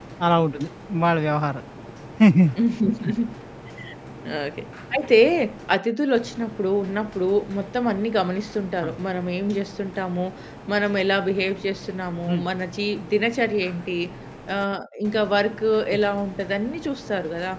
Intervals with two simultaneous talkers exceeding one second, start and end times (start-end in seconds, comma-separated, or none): none